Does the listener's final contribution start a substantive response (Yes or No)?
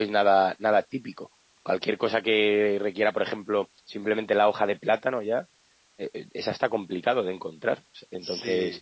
No